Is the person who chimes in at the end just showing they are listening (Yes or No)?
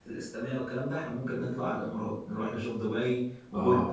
No